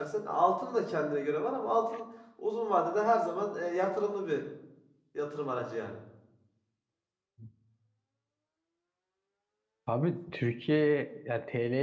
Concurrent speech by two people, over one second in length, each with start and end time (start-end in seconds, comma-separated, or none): none